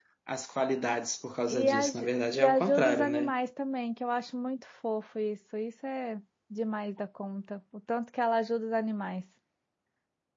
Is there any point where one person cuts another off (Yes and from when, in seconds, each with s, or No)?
Yes, from 1.5 s